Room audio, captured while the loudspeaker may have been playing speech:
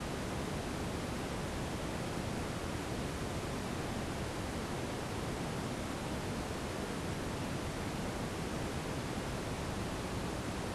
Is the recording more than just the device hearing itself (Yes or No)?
No